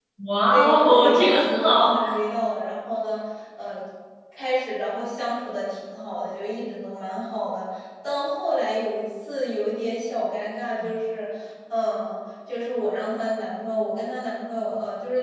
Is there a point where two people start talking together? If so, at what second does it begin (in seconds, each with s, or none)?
0.5 s